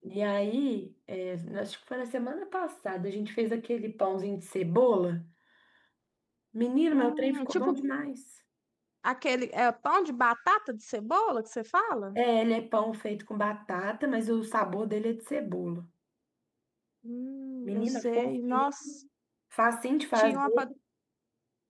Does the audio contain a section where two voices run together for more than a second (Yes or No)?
Yes